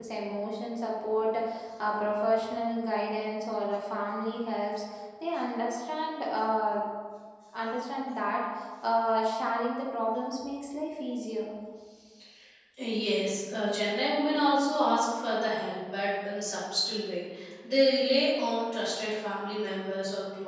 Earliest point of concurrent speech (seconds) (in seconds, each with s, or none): none